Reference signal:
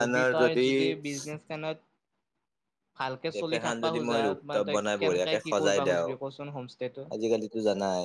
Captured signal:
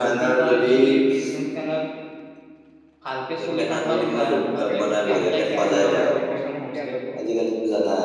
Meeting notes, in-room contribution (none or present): present